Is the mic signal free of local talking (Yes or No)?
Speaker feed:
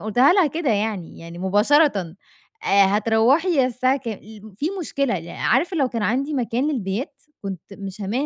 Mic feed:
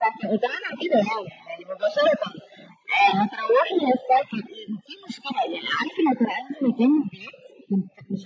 Yes